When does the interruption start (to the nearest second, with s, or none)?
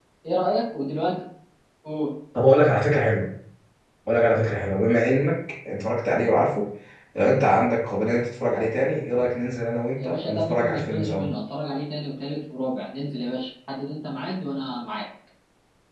10 s